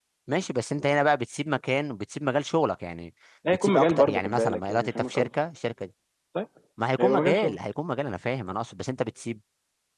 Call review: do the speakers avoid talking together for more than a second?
No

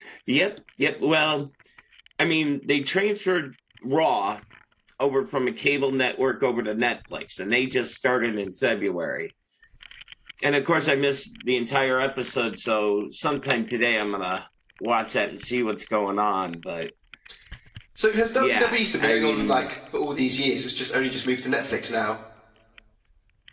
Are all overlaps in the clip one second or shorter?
No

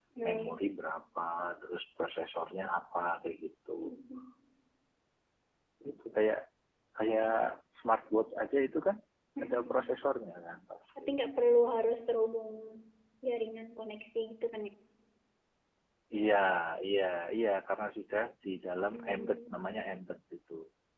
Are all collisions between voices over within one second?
Yes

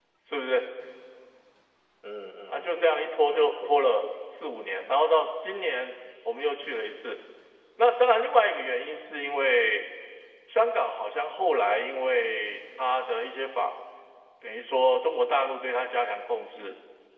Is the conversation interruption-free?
No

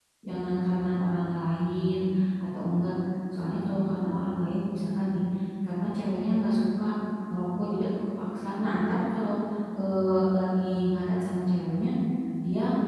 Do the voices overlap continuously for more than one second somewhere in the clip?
No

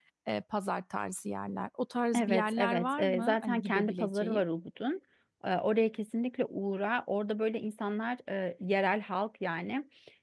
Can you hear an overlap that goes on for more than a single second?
Yes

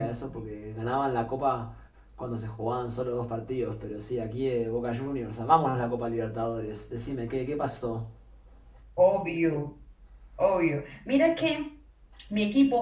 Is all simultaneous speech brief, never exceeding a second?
Yes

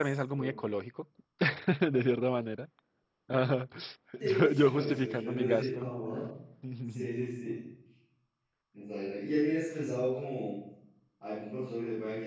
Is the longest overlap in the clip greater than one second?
Yes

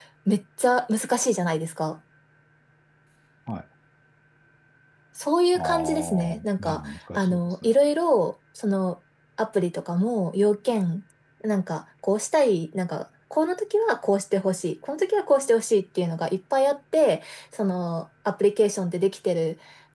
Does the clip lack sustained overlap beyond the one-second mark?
No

